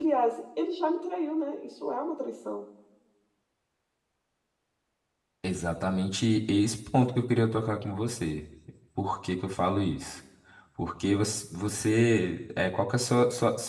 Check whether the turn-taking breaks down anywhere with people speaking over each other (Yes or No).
No